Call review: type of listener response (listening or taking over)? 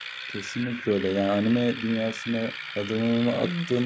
listening